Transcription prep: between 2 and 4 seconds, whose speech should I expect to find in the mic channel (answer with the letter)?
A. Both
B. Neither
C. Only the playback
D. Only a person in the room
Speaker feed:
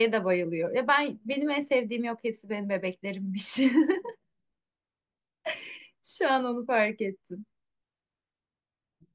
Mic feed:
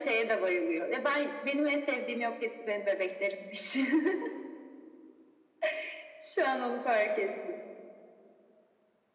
C